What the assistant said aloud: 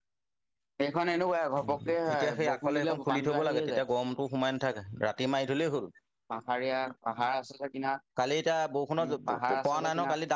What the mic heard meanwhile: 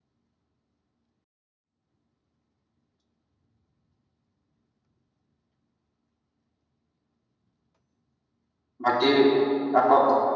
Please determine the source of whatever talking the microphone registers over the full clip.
user only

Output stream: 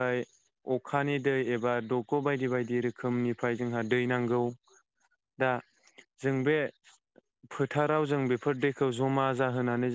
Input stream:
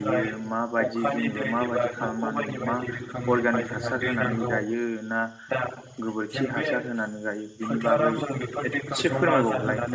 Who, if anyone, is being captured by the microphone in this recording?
both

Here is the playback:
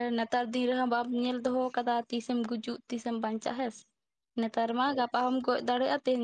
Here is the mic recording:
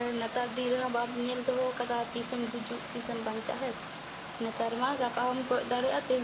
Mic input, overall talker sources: echo only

